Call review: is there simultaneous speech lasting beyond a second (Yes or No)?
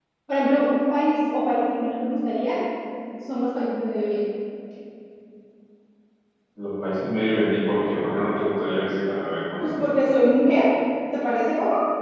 No